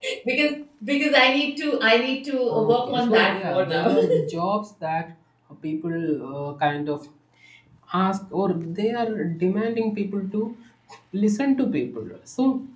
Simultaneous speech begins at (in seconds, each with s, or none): 2.5 s